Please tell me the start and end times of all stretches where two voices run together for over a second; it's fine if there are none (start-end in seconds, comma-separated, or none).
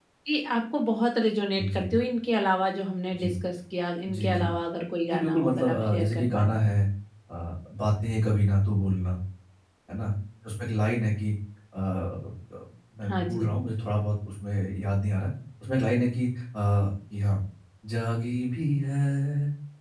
5.1-6.5